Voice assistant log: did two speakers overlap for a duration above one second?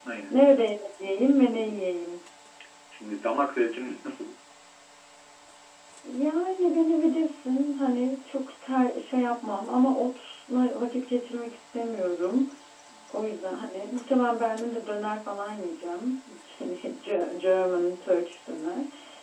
No

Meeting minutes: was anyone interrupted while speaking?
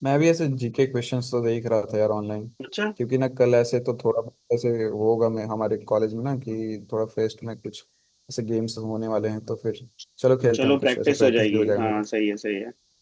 Yes, from 10.5 s

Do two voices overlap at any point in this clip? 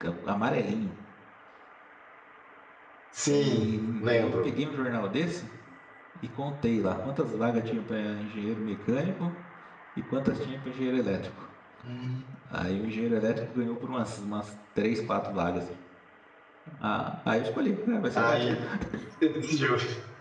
Yes, from 3.3 s

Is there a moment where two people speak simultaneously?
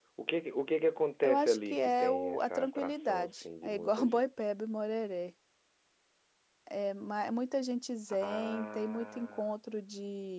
Yes, from 1.2 s

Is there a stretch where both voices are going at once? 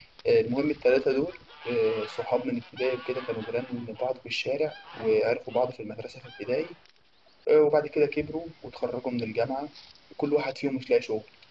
No

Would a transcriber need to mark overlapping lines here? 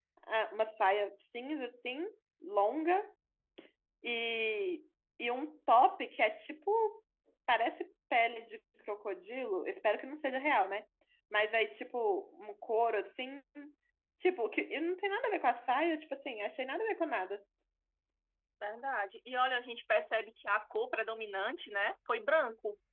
No

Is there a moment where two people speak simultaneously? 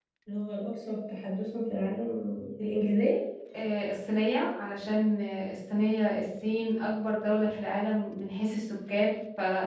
No

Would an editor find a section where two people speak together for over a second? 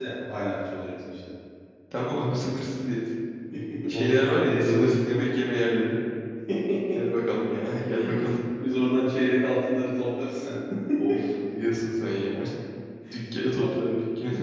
Yes, from 3.9 s

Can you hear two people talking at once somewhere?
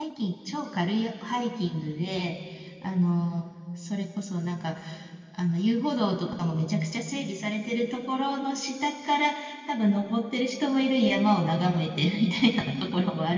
No

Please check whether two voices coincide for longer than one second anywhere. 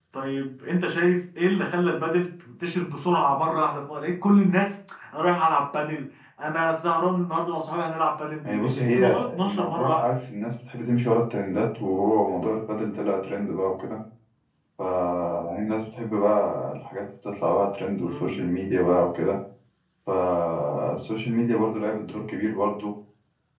Yes, from 8.4 s

